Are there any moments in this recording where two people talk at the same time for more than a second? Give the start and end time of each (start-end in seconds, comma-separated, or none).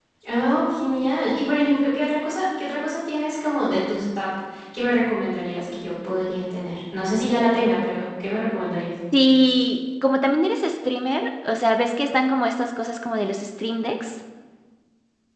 none